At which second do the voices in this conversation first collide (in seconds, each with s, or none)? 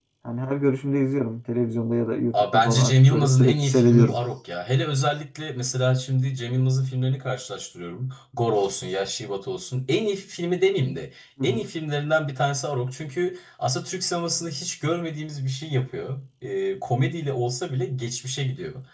2.3 s